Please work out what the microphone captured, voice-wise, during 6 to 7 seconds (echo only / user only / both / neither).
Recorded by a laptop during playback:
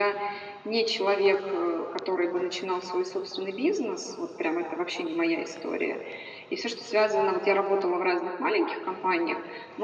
echo only